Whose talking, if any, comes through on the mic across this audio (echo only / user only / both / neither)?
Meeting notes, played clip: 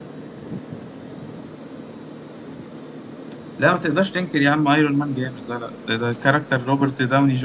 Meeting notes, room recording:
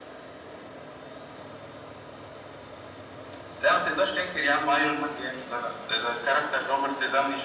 echo only